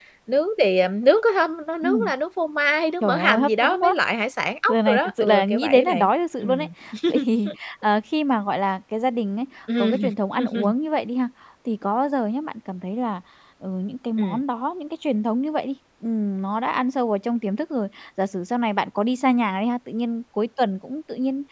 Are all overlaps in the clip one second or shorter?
No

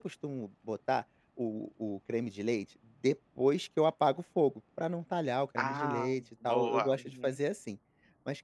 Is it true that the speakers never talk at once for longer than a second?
No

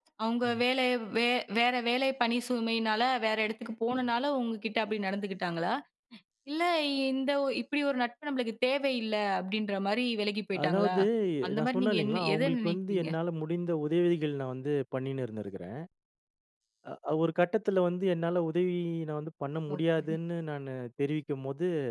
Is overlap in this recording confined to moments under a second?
No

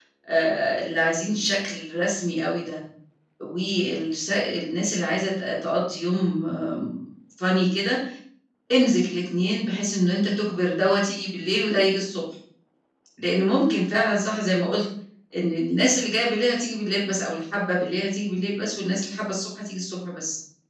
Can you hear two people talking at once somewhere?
No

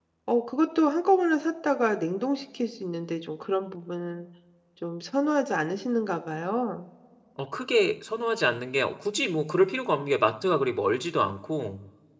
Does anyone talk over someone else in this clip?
No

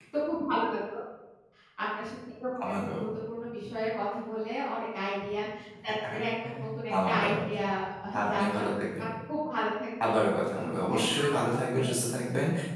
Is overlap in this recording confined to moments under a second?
No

